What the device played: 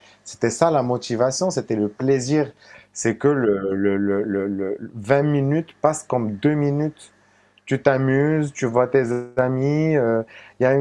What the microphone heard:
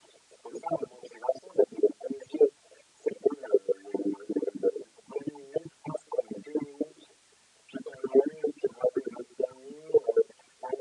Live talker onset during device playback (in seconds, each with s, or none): none